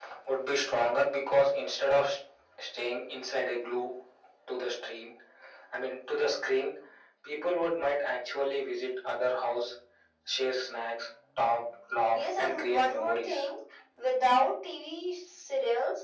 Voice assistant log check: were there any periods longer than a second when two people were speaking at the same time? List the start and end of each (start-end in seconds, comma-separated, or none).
12.1-13.4